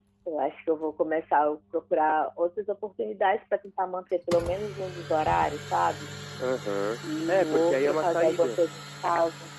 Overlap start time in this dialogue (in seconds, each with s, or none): 7.3 s